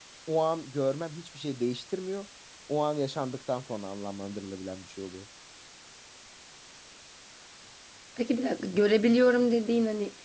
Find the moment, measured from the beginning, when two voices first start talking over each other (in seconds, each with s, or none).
none